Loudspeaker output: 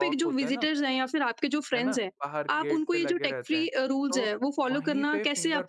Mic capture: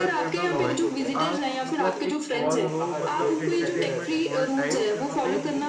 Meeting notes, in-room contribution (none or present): present